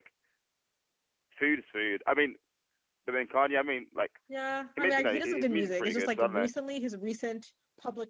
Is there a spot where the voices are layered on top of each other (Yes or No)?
Yes